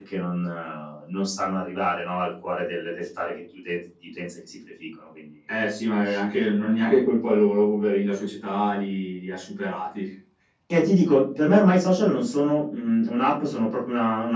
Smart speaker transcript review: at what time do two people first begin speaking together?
none

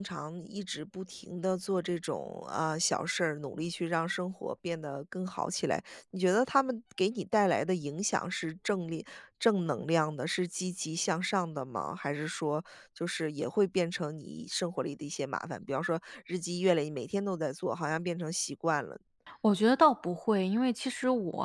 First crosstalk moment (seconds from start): none

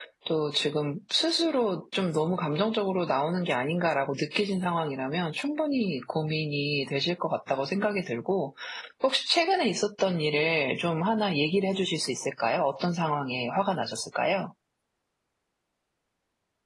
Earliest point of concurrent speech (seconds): none

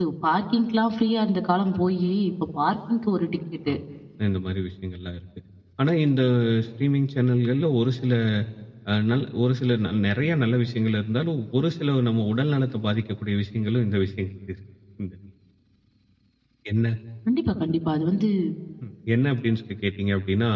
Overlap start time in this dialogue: none

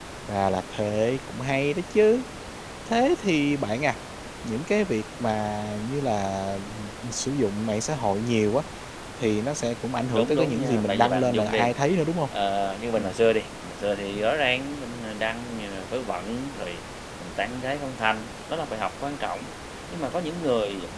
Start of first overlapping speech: 10.1 s

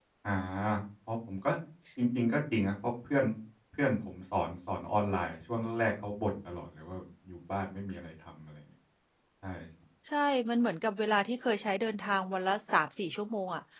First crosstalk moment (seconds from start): none

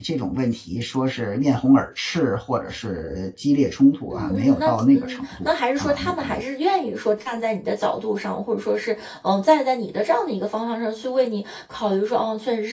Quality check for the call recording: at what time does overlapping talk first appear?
4.1 s

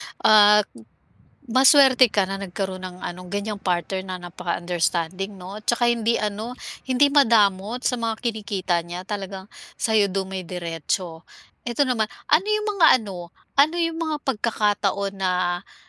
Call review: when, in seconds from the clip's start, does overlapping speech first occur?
none

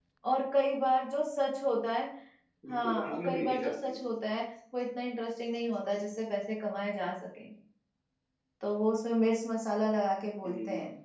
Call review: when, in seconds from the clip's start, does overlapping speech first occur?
2.7 s

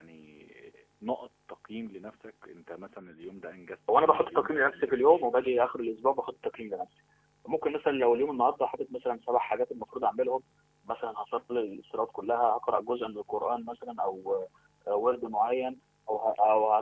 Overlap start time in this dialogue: 3.9 s

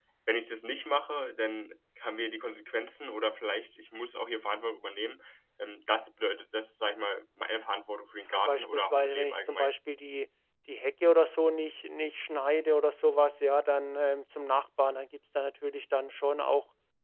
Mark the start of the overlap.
8.5 s

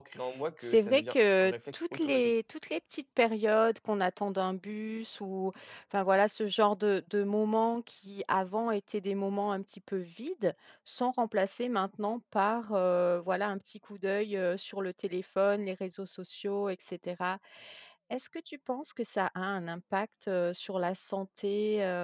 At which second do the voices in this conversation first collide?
0.6 s

